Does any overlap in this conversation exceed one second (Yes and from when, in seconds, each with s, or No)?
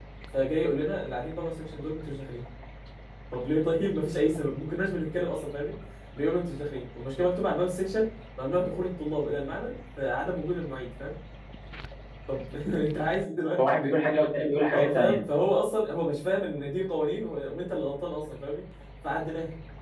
No